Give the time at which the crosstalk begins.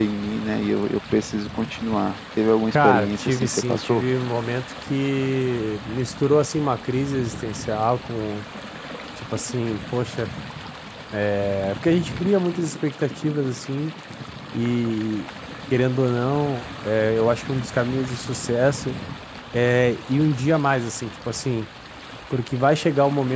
2.7 s

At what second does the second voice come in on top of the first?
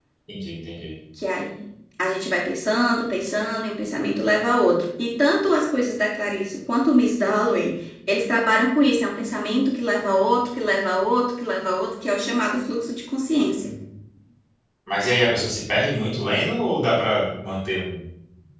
none

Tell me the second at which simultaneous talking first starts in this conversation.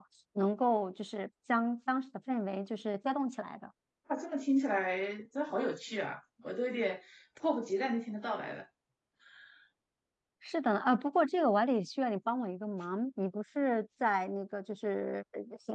none

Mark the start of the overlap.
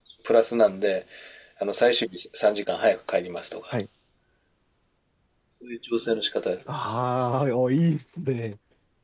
none

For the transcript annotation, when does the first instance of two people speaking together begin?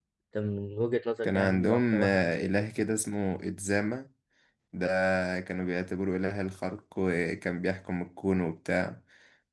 1.2 s

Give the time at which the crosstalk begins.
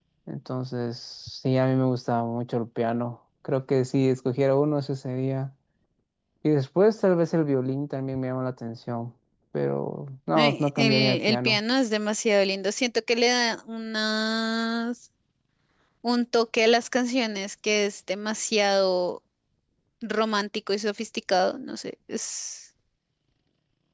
10.3 s

